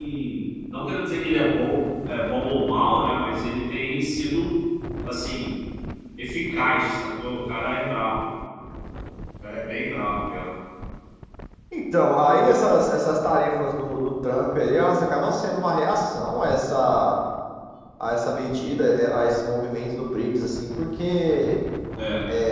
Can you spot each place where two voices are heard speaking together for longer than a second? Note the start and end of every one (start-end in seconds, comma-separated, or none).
none